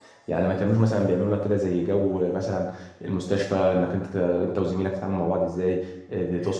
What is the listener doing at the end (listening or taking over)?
listening